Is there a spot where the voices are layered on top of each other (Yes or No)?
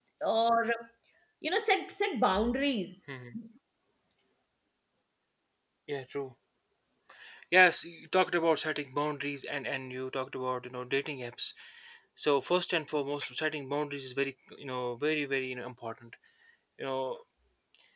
No